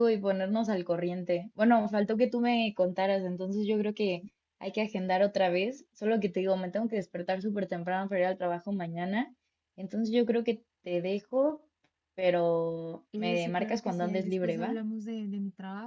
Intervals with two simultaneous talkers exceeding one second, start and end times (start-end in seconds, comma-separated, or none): 13.2-14.8